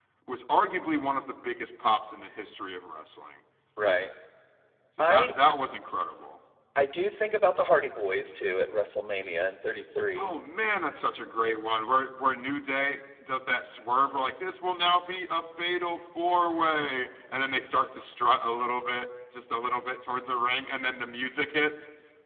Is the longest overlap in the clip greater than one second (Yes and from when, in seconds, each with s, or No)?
No